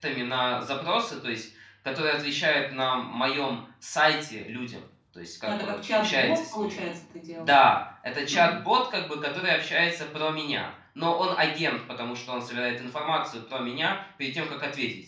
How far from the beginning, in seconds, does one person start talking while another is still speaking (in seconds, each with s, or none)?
5.4 s